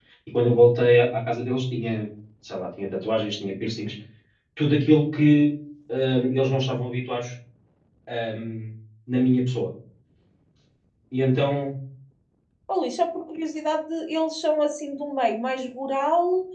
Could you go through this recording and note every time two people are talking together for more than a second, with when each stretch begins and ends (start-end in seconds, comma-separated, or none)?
none